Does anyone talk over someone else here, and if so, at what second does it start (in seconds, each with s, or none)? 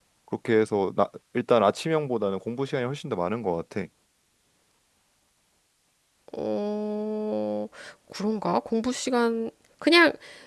none